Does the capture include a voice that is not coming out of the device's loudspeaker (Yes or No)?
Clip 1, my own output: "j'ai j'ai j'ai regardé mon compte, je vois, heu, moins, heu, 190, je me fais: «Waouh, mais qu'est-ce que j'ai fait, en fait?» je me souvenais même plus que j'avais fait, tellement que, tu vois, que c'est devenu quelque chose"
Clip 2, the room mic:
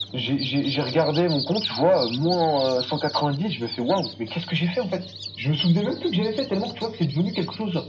No